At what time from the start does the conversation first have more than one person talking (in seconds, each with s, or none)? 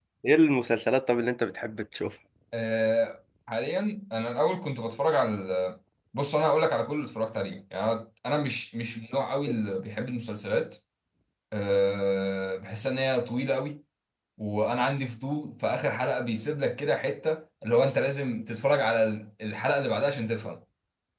none